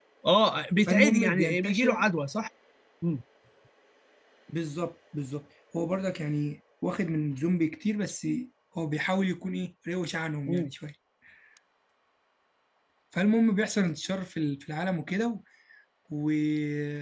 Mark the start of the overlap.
0.8 s

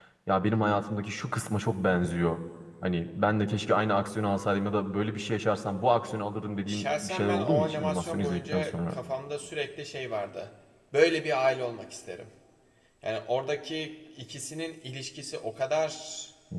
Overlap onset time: 6.7 s

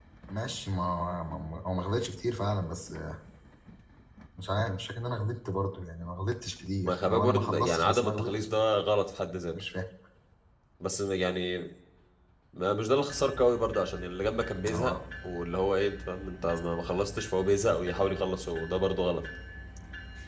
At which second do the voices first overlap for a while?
6.8 s

